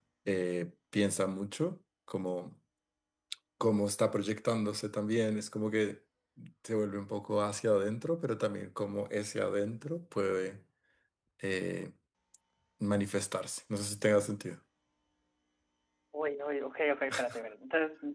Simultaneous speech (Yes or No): No